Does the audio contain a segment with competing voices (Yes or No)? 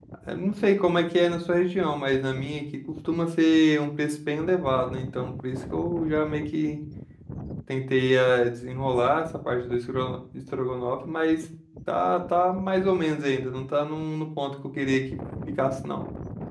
No